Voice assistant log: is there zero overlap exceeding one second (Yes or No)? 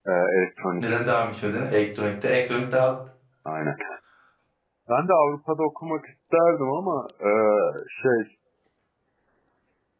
Yes